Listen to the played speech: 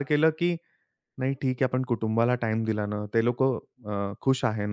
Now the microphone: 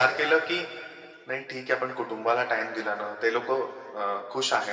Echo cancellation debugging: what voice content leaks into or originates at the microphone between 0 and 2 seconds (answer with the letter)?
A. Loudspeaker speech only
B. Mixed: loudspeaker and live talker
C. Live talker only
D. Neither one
A